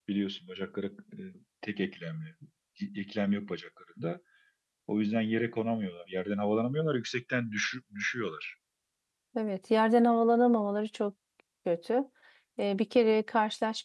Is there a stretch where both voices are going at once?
No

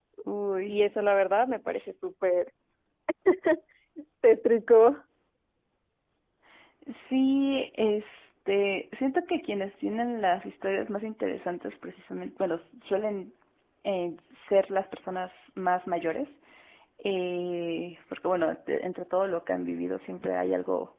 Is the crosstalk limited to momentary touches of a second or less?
Yes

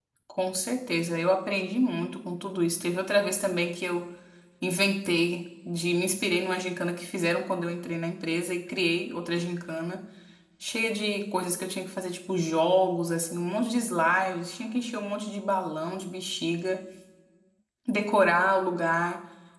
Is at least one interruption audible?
No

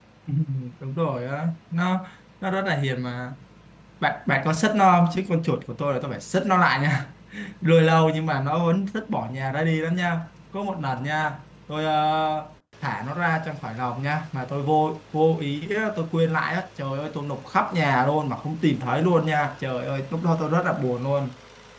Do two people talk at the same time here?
No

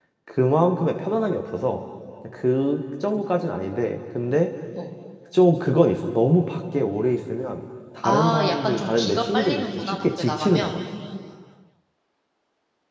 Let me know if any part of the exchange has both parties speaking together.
Yes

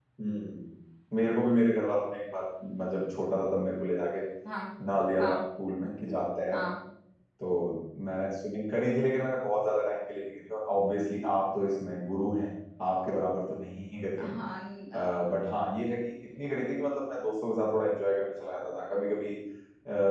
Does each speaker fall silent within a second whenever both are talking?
Yes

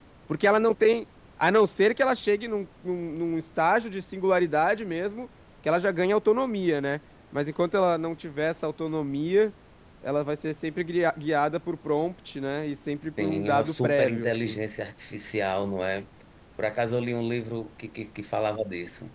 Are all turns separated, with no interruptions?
No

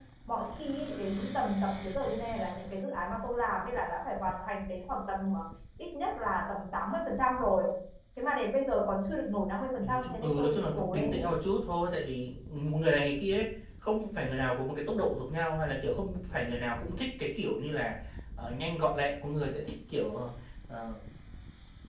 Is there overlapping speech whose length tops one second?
Yes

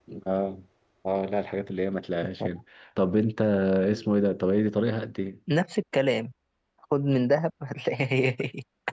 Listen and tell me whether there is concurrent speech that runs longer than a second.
No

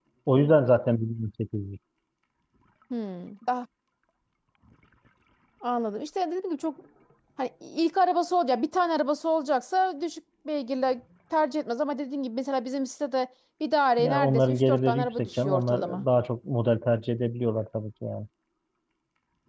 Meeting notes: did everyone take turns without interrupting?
No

